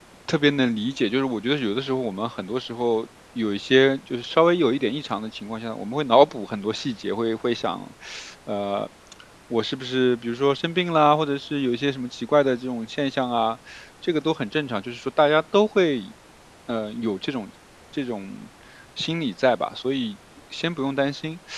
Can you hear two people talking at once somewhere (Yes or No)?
No